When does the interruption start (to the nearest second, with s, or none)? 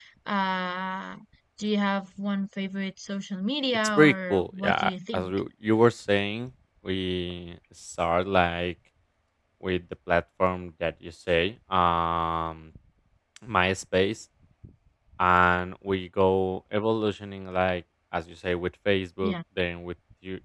4 s